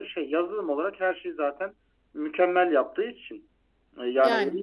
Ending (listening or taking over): listening